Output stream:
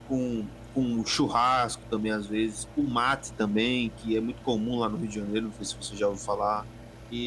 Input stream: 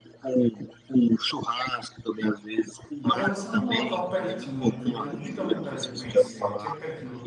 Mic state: both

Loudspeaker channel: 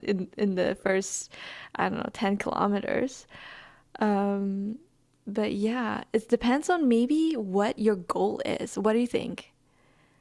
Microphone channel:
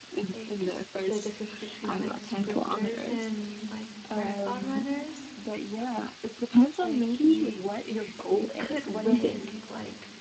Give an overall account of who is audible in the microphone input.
both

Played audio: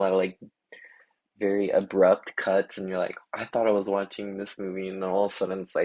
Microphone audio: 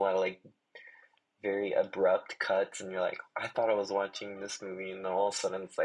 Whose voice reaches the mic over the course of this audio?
echo only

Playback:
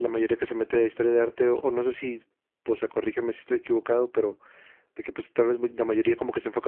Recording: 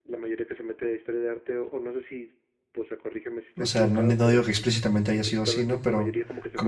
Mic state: both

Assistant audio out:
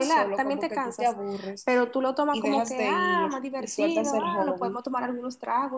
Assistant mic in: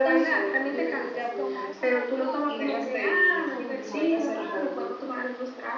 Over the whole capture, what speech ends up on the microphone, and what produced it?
both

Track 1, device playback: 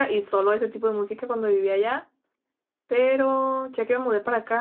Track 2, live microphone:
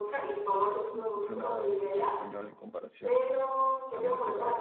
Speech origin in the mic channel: both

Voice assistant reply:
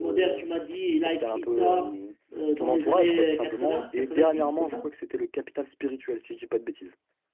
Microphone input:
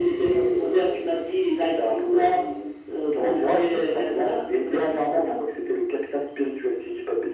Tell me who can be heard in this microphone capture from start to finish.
echo only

